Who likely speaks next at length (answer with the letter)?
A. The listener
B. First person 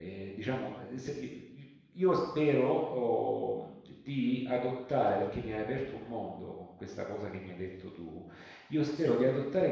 B